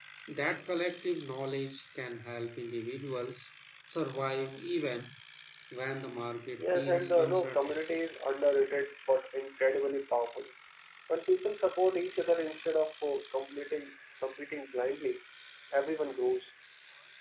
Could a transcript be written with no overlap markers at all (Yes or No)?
No